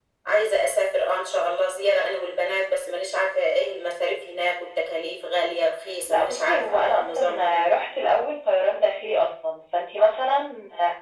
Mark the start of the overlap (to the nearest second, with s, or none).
6 s